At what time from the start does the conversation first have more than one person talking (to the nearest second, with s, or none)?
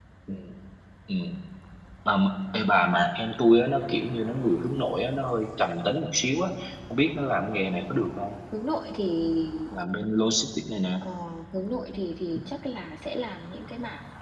none